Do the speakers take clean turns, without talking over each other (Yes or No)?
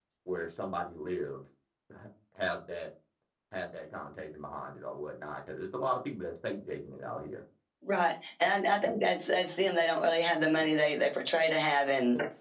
Yes